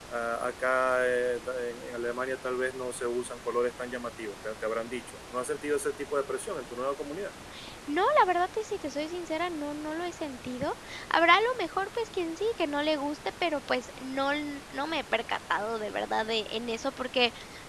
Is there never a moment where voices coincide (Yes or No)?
Yes